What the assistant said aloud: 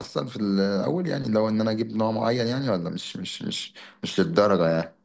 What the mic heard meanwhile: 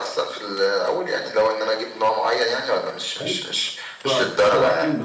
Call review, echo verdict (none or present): present